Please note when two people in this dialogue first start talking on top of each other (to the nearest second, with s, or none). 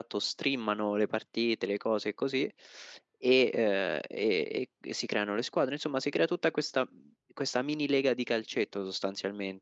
none